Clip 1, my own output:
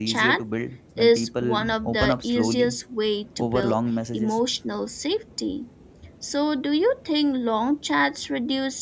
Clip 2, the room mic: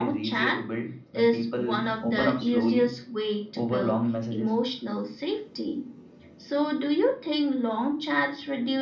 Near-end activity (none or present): none